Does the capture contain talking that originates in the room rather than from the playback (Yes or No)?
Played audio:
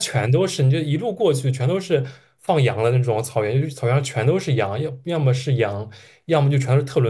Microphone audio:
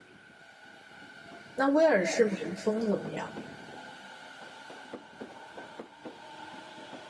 Yes